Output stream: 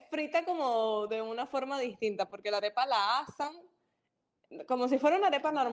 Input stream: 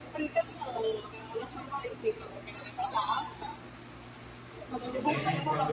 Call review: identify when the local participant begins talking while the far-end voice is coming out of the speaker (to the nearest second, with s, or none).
5 s